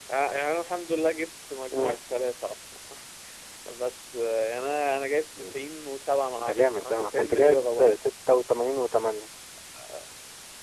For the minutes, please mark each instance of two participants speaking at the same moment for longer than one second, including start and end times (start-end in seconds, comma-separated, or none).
6.4-7.9